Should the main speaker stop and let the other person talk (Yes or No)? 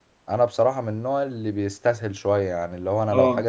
No